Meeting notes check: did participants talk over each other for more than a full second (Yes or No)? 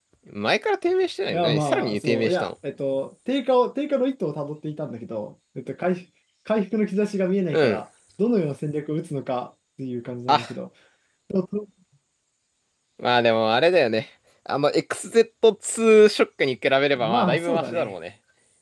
Yes